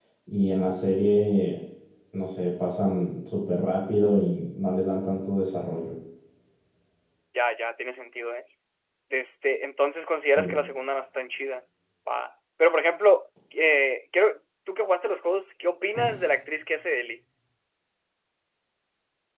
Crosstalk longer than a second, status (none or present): none